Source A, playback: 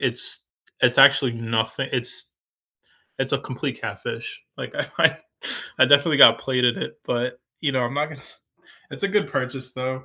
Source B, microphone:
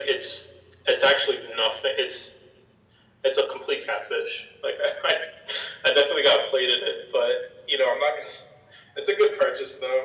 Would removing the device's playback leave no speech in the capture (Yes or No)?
Yes